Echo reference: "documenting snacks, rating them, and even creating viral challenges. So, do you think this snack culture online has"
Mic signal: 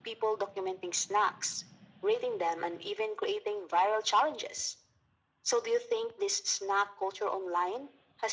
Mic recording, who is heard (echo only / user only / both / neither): echo only